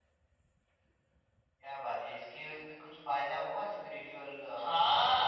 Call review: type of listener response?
taking over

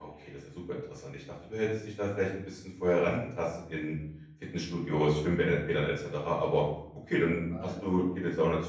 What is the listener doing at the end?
listening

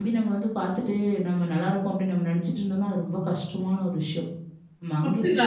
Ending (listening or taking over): taking over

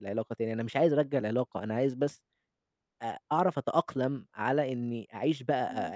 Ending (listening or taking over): listening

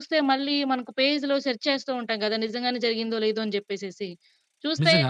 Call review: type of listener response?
listening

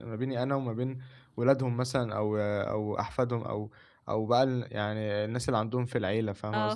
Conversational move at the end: taking over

